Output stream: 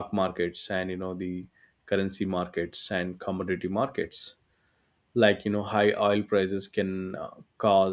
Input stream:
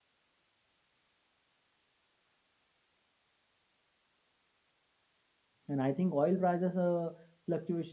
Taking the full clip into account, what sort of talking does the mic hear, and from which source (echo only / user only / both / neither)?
user only